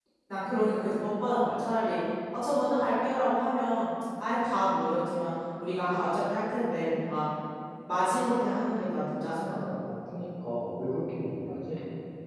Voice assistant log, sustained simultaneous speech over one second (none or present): none